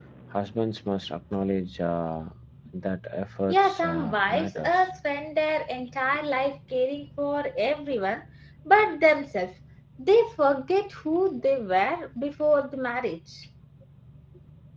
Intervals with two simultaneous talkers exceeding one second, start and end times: 3.5-4.9

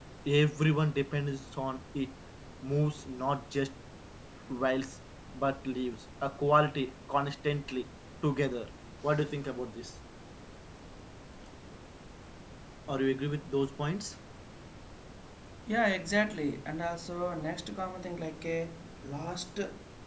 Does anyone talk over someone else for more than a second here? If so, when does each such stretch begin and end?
none

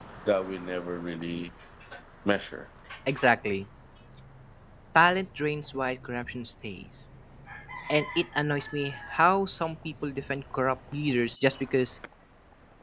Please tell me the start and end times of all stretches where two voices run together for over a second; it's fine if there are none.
none

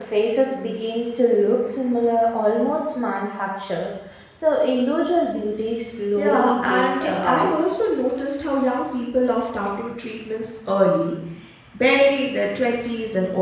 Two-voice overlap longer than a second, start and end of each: 6.2-7.6

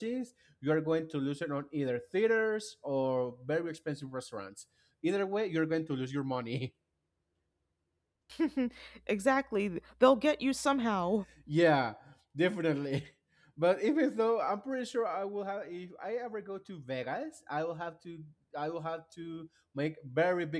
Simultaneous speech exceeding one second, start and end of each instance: none

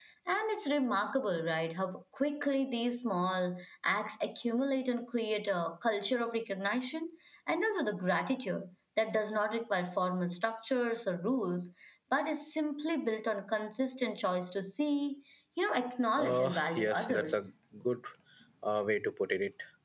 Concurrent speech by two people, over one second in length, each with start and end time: 16.2-17.5

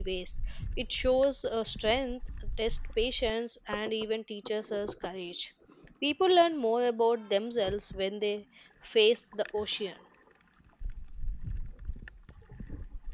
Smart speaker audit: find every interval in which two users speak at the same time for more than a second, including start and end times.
none

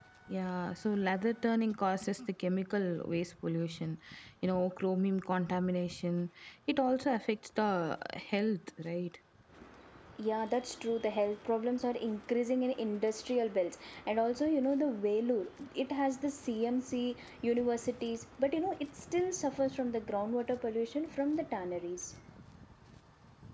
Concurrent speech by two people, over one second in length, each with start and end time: none

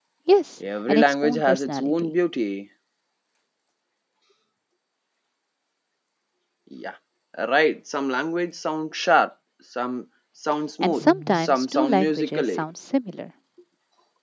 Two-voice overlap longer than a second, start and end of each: 0.9-2.1, 10.8-12.6

